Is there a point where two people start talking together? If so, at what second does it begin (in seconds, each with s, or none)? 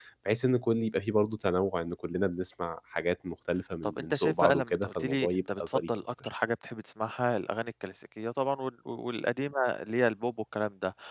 3.8 s